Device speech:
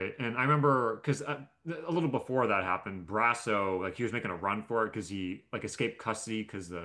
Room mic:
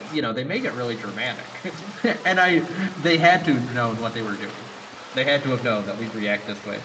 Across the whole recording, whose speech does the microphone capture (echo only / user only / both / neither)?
user only